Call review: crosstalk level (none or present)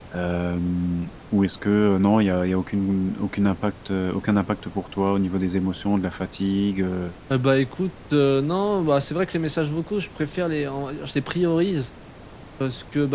none